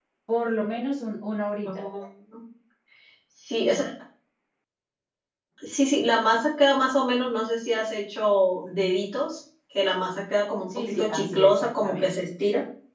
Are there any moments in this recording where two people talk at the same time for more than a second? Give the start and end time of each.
10.8-12.2

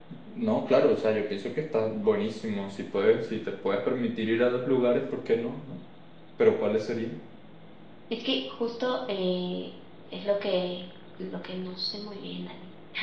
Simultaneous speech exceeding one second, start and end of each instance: none

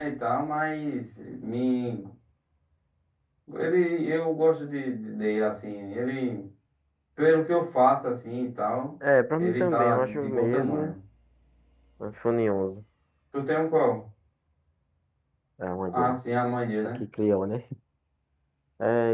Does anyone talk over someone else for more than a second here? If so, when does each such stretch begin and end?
9.4-10.9

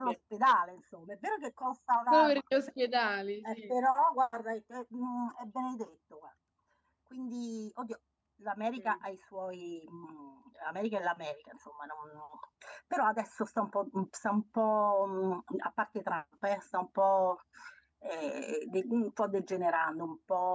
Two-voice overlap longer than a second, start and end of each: none

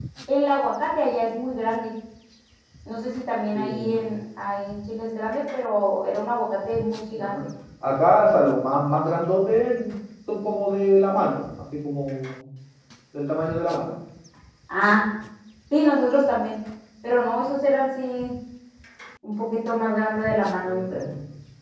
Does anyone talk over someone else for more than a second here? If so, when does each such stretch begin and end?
none

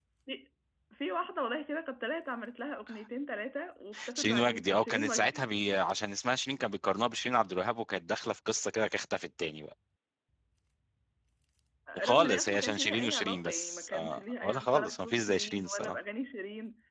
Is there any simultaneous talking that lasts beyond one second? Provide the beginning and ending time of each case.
4.1-5.4, 12.1-16.0

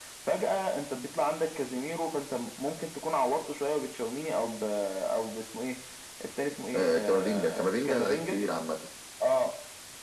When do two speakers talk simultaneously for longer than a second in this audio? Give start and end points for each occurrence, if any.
6.8-8.3

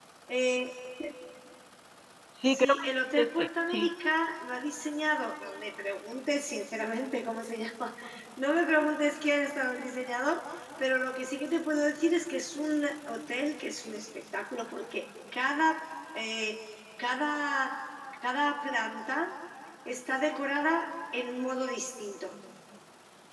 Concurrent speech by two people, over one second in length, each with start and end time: 2.4-3.9

